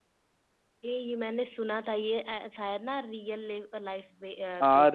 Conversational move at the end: taking over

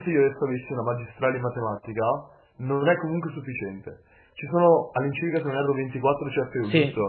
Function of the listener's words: taking over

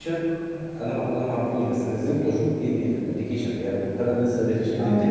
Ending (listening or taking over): listening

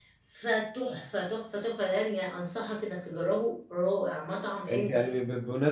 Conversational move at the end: taking over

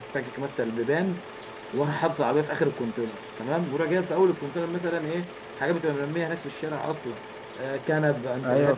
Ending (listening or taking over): listening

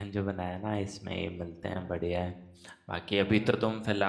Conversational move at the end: listening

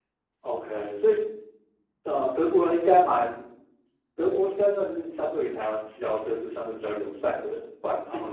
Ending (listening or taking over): taking over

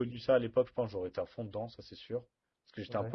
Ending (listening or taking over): listening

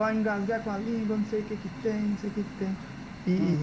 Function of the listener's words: listening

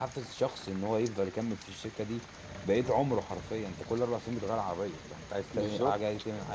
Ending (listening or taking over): listening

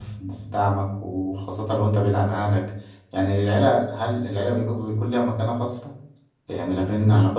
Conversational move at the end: listening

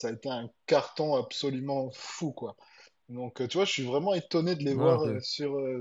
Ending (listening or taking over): listening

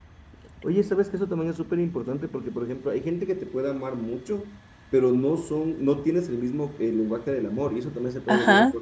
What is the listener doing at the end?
taking over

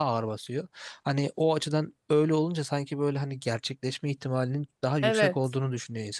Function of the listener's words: listening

